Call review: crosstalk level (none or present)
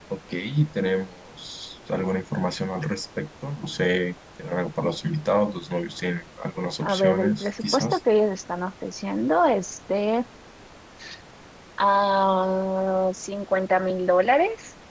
present